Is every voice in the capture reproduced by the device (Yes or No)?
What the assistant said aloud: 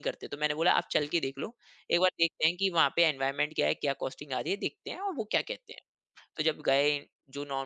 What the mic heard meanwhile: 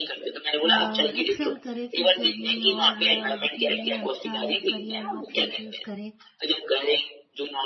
No